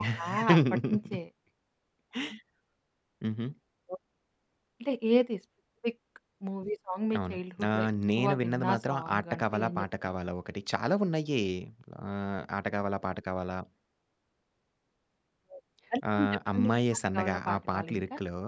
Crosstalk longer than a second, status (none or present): present